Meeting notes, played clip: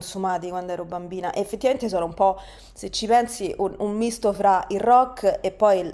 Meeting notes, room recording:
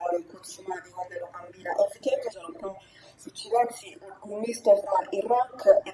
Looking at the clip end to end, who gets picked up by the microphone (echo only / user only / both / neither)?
echo only